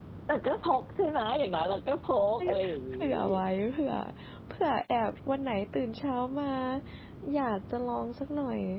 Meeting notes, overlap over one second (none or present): none